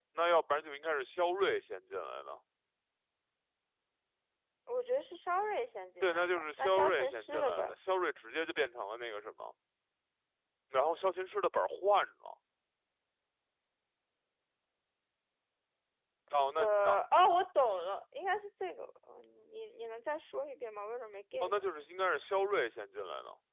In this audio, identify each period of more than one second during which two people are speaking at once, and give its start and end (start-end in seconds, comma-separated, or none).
6.0-7.7